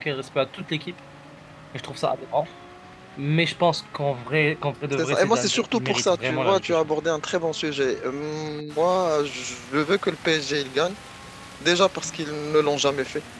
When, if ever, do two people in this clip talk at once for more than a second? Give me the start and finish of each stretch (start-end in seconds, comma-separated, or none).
4.9-6.9